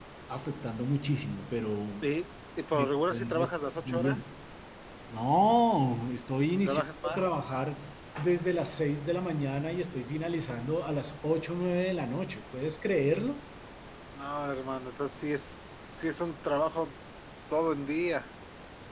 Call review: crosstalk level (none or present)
present